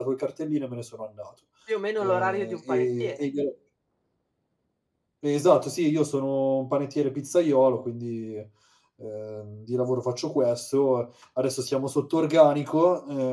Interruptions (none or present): present